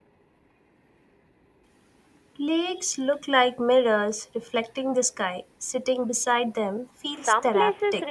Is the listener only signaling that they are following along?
No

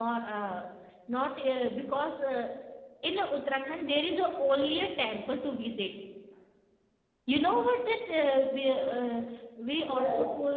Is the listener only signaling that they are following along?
Yes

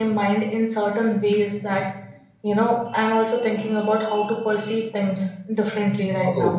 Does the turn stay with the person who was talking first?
No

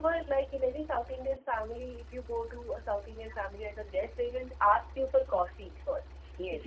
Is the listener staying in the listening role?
Yes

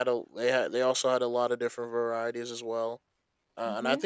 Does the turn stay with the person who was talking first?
Yes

